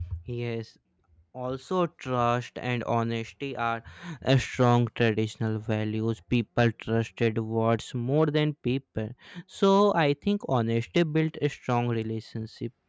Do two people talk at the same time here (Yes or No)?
No